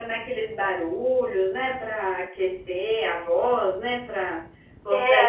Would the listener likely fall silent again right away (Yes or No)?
No